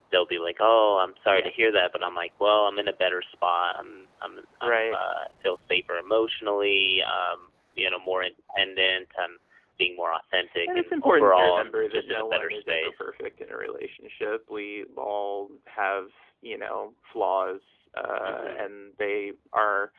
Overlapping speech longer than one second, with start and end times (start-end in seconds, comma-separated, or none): 10.8-13.1